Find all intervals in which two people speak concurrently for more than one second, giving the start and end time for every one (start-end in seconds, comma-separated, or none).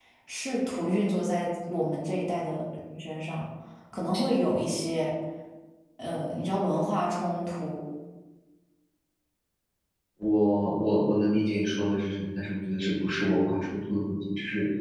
none